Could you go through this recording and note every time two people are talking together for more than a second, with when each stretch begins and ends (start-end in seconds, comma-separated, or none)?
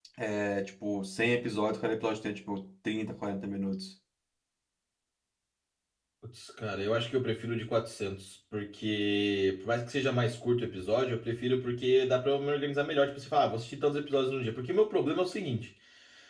none